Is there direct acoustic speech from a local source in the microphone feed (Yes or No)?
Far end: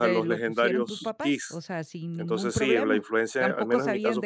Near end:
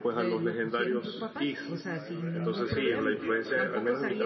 Yes